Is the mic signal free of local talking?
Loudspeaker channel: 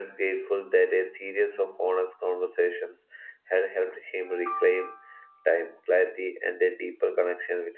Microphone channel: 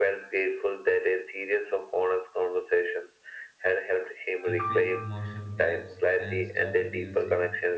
No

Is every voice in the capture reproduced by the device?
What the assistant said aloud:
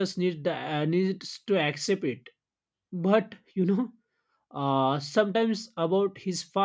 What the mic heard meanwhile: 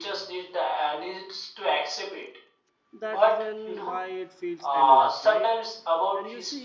No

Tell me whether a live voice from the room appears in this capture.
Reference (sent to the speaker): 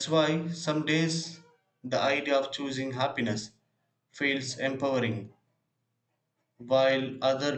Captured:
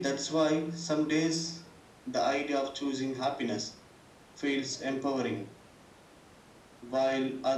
No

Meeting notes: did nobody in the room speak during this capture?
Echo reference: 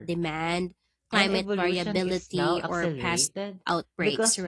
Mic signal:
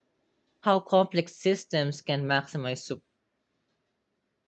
No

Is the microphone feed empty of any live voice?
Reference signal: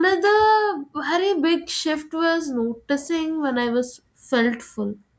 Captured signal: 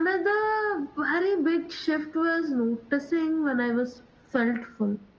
Yes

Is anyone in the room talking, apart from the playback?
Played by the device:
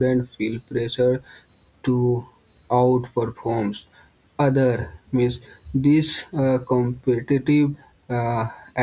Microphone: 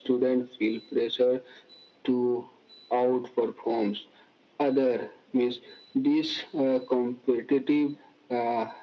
No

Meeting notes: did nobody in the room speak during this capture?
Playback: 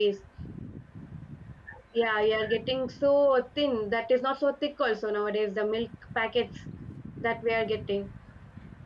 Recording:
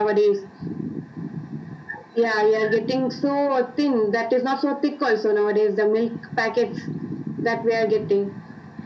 Yes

